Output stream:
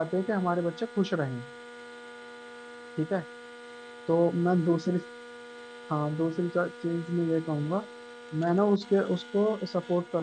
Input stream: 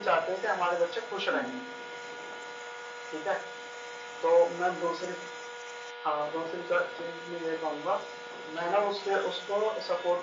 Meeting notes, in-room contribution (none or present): present